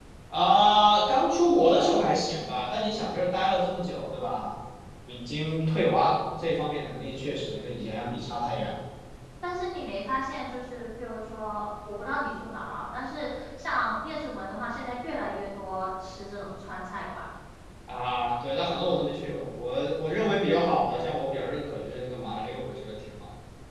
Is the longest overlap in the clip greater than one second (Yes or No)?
No